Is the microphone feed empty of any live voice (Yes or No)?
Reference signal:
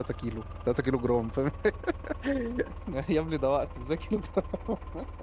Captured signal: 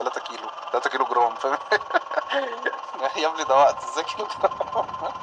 Yes